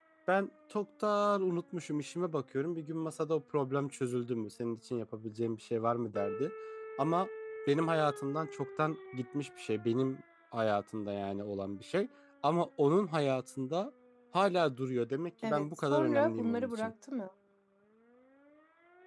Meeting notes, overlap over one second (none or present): present